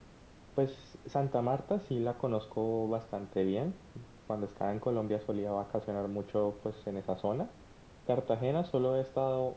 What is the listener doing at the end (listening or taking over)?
listening